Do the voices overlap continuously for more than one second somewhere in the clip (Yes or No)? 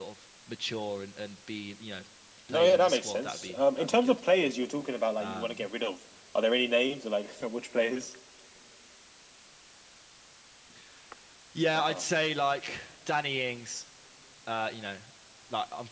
Yes